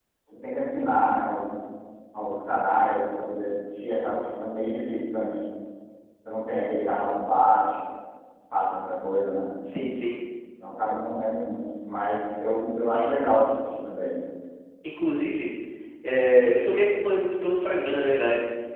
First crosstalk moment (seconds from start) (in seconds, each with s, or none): none